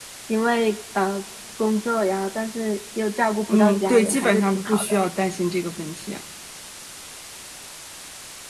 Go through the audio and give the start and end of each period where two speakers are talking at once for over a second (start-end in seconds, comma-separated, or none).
3.5-5.0